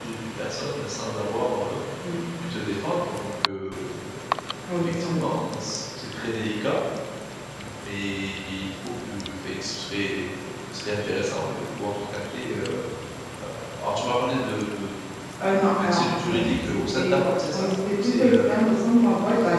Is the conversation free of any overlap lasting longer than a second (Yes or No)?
No